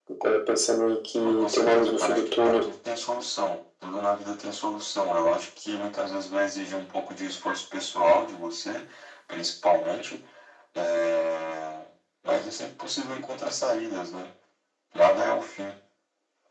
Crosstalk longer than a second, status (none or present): present